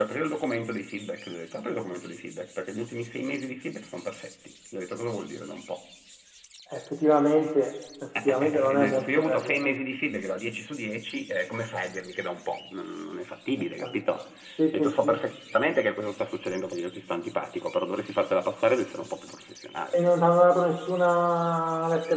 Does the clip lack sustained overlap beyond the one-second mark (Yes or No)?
No